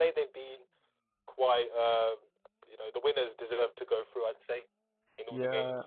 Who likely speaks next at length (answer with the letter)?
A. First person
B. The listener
B